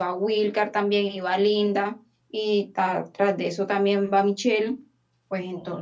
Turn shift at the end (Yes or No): No